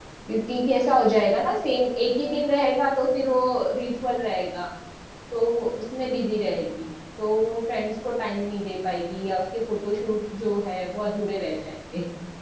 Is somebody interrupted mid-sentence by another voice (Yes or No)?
No